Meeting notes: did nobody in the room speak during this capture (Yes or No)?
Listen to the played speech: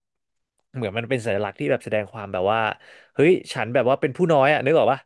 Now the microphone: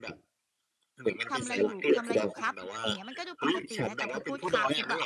No